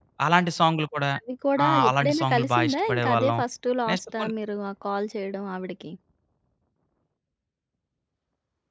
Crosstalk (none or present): present